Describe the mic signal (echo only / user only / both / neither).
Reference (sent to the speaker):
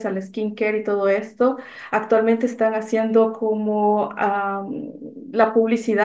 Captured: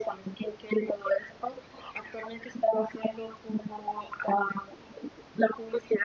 echo only